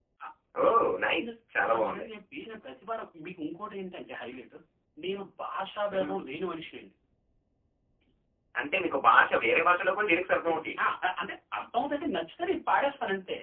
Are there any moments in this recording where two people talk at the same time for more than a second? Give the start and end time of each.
none

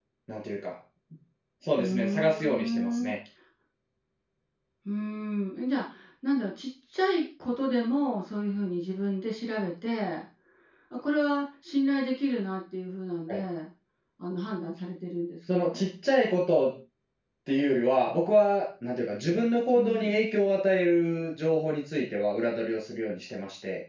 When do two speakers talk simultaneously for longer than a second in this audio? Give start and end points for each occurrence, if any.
1.8-3.1

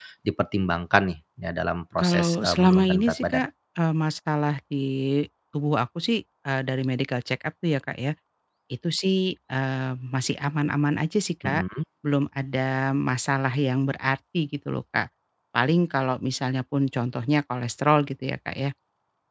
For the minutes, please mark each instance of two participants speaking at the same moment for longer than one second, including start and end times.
2.0-3.5

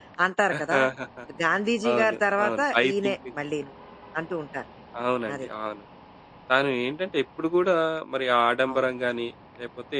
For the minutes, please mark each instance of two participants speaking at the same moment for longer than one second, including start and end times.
1.9-3.1

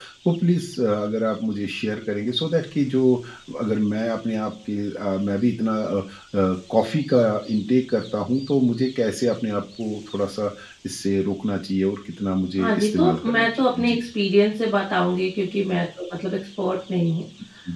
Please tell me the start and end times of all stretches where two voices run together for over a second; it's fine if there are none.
12.6-14.0

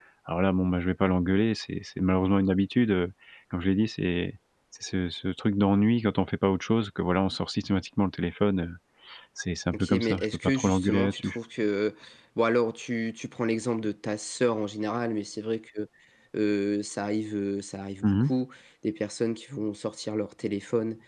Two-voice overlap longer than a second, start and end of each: 9.7-11.4

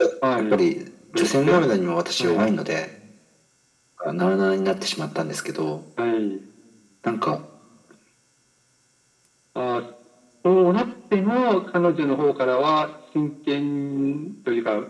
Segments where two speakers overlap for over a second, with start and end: none

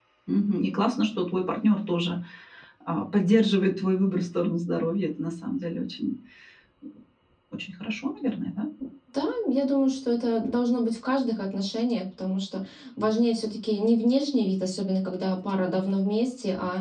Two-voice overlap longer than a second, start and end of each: none

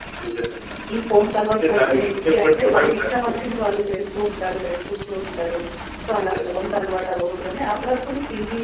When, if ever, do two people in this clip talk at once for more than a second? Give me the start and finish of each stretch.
1.6-3.4

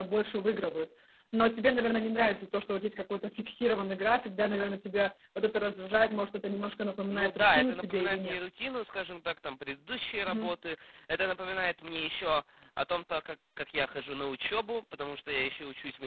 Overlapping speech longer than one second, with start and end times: 7.1-8.4

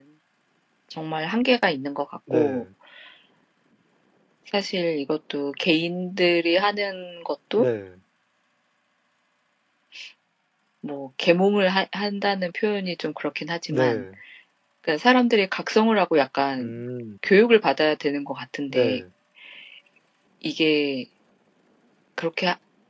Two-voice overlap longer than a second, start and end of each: none

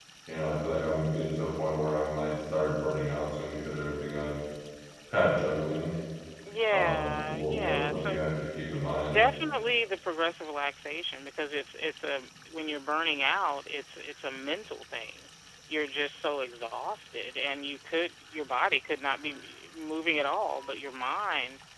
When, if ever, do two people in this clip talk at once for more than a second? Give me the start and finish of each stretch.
6.7-8.2

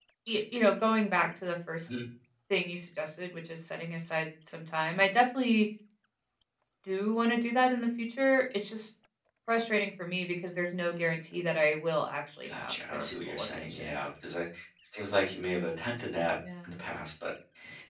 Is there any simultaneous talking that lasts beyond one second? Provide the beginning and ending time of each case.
12.4-13.9

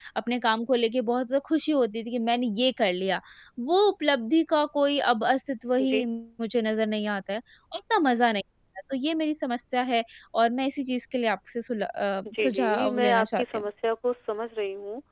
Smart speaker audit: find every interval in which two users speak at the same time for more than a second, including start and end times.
12.2-13.7

